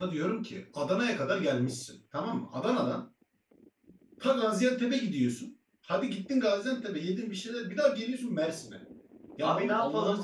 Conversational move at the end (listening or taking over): taking over